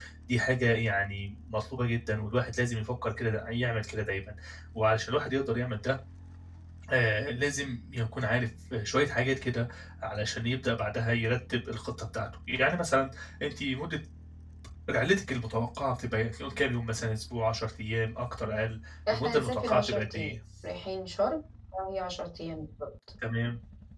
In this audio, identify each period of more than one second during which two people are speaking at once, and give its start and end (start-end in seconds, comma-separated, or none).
19.1-20.3